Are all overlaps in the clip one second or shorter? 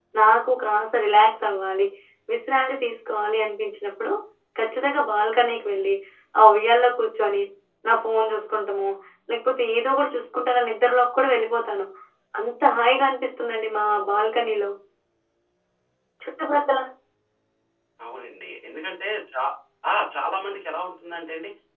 Yes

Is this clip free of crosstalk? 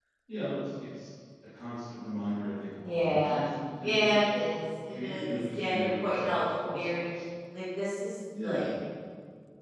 No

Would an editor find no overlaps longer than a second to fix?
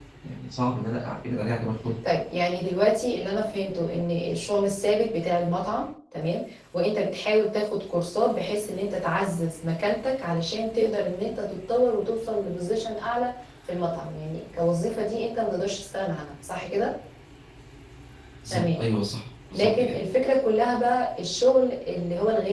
Yes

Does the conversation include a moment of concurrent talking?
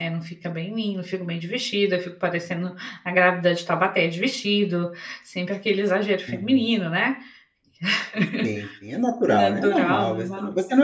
Yes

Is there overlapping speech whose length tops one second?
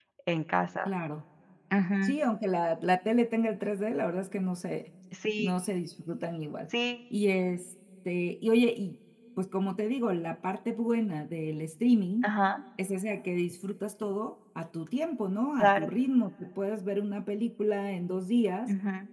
No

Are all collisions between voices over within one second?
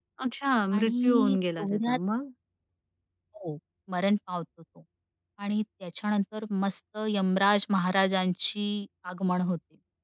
No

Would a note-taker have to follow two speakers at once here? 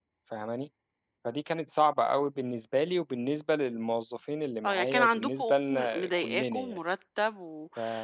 Yes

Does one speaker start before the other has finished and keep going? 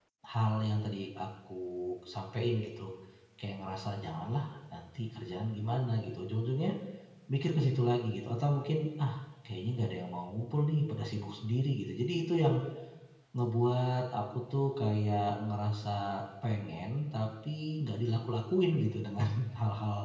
No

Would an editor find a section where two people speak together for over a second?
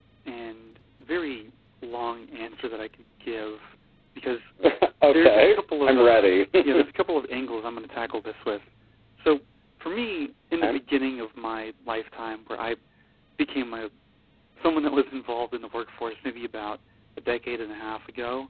Yes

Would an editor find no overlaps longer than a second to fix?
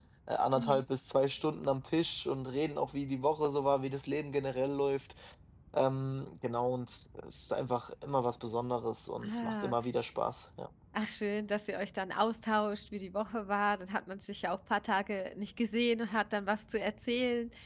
Yes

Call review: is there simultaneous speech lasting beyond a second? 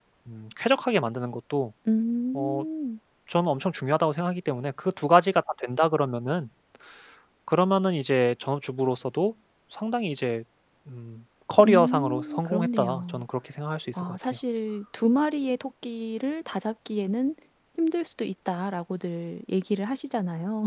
Yes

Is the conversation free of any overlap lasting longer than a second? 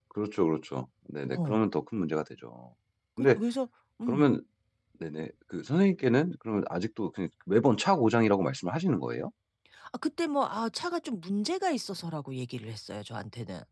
Yes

